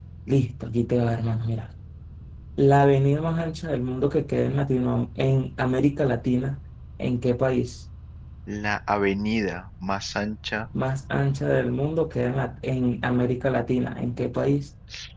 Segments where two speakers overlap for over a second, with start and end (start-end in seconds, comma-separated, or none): none